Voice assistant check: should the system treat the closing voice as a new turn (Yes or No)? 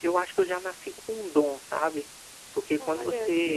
No